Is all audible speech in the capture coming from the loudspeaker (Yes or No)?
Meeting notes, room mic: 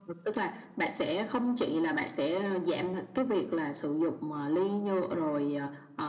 Yes